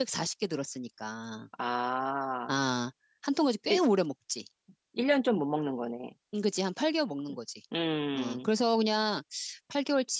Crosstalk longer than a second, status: none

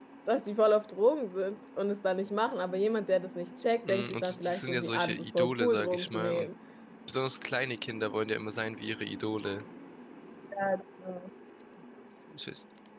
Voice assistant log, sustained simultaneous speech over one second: present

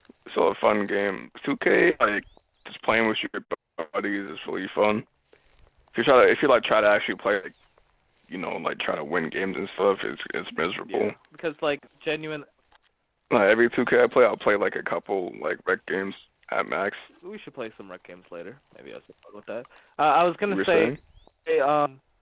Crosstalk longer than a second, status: none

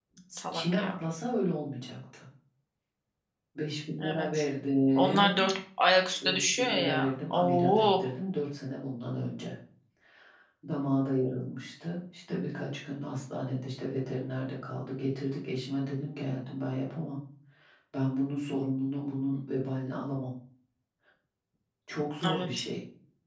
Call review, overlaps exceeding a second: present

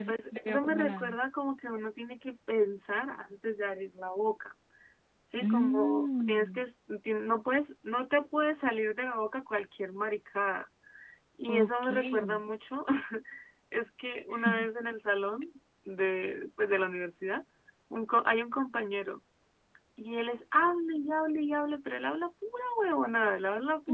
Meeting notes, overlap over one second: present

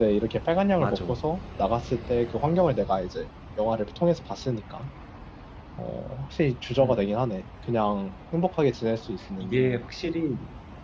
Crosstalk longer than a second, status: none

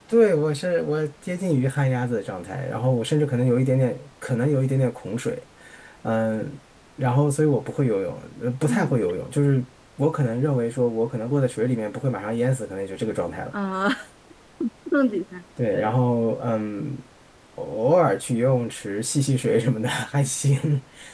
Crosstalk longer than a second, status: none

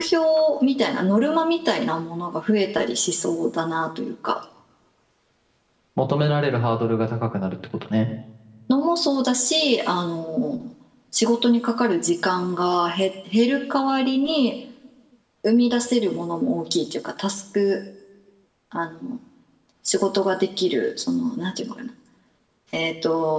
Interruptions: none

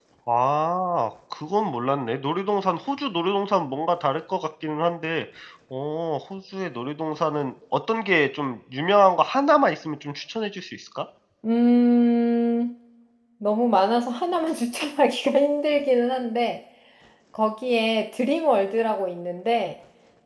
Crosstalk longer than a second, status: none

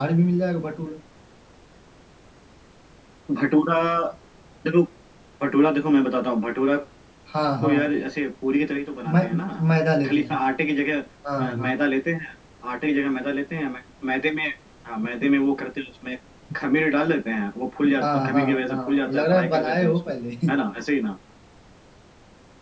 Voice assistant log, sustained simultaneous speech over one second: present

